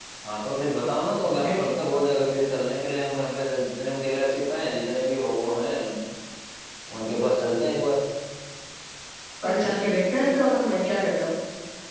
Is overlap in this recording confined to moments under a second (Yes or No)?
Yes